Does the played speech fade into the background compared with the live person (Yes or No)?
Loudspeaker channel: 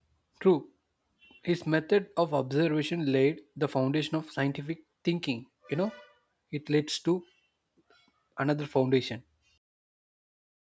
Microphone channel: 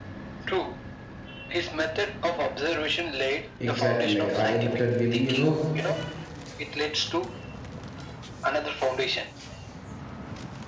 Yes